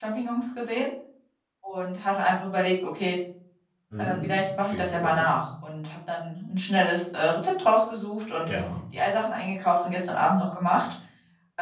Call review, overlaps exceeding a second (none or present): present